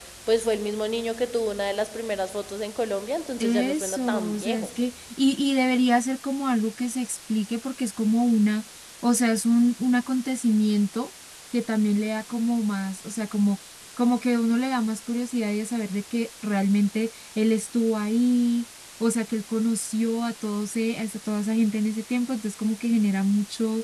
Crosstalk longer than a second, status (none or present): present